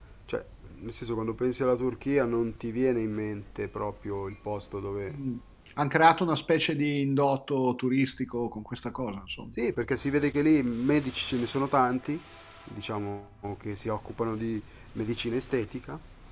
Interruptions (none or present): none